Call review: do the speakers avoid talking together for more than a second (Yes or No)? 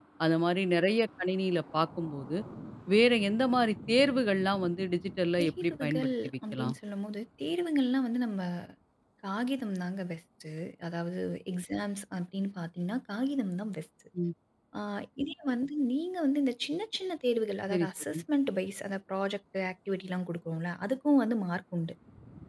No